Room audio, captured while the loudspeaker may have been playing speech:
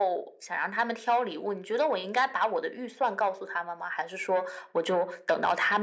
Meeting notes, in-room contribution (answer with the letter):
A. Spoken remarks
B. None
B